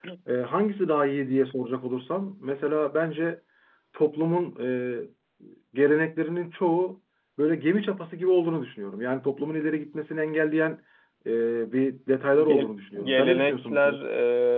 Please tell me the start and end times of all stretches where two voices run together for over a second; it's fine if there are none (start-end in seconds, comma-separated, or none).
12.4-13.9